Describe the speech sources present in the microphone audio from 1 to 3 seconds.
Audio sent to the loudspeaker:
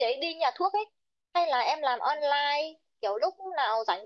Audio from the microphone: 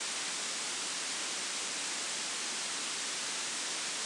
neither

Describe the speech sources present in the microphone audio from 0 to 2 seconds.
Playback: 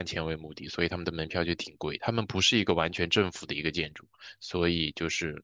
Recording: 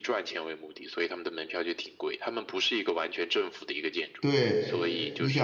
echo only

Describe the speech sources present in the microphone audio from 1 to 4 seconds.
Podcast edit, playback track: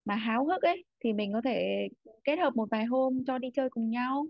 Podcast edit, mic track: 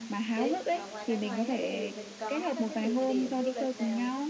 both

